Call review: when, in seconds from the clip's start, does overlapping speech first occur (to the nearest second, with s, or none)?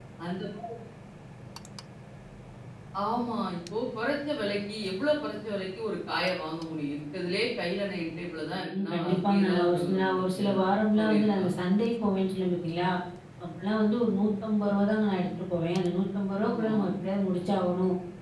9 s